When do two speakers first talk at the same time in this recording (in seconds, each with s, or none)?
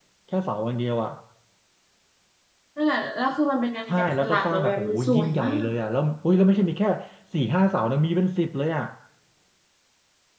3.9 s